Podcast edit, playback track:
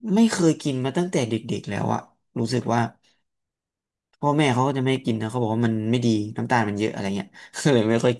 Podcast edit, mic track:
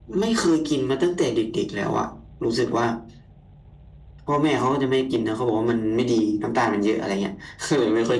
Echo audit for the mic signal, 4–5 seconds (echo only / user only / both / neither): echo only